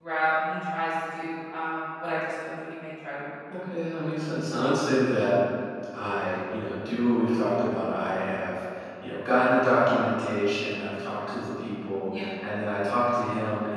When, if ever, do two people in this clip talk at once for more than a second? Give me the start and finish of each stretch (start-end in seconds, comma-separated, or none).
none